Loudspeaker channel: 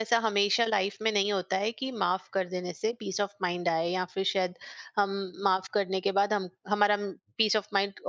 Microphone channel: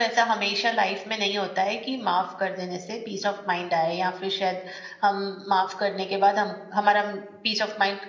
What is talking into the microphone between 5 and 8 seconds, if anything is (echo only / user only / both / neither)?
echo only